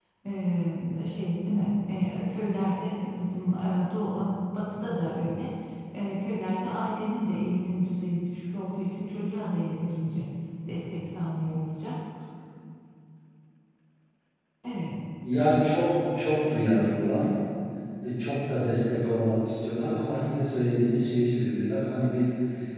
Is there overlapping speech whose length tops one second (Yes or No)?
No